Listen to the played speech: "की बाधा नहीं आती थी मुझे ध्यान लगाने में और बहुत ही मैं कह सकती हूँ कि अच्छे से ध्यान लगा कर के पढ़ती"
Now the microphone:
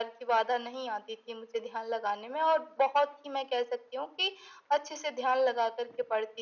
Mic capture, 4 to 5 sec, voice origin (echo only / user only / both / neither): echo only